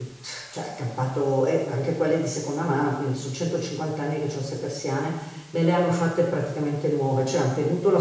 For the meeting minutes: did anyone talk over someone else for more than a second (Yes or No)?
No